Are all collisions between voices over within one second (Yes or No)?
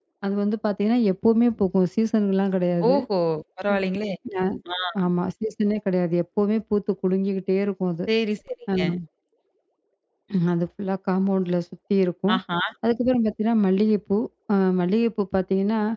Yes